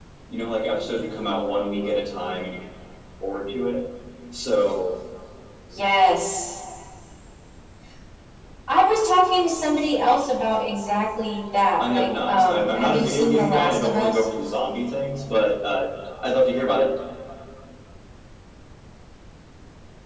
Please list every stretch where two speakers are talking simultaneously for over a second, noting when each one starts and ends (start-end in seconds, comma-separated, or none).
11.8-14.2